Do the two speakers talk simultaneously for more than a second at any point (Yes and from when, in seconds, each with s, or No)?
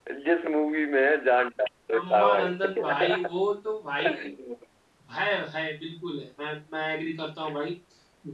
Yes, from 2.0 s